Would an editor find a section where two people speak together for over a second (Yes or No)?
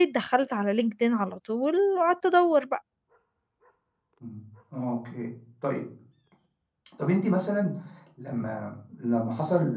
No